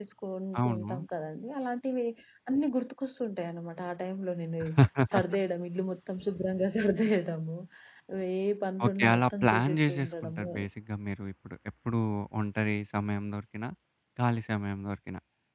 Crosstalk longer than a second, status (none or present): present